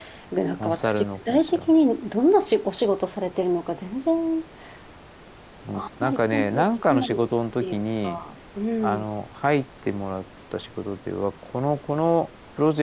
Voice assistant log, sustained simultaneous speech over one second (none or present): present